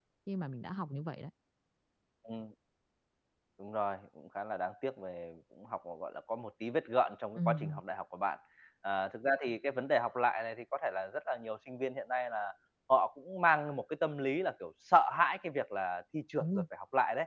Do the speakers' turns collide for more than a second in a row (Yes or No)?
No